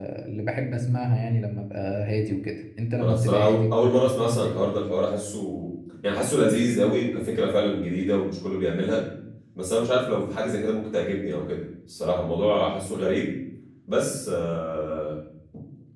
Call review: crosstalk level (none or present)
present